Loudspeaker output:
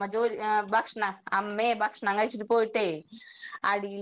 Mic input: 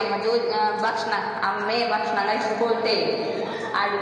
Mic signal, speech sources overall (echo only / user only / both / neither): both